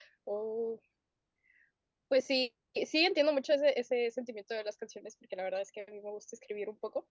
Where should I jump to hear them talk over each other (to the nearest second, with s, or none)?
none